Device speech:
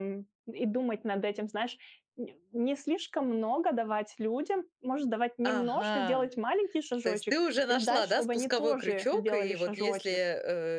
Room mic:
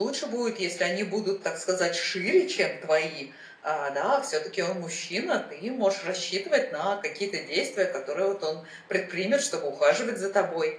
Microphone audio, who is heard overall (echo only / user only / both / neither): user only